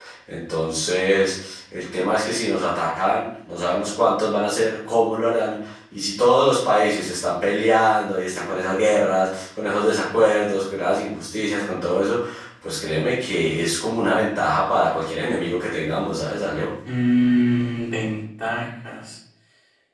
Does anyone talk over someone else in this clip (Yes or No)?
No